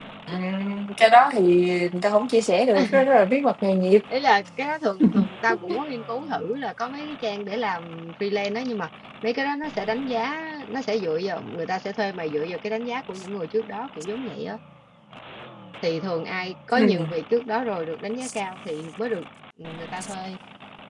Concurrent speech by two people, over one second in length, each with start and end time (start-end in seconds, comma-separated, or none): none